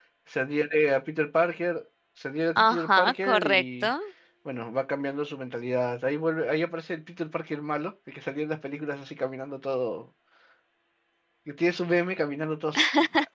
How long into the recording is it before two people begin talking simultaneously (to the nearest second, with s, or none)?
3 s